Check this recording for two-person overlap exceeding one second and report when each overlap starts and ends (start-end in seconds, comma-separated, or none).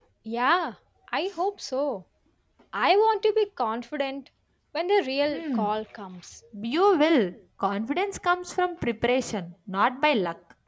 none